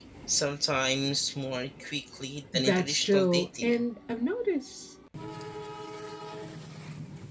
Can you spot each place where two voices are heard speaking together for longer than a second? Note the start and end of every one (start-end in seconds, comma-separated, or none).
2.5-3.8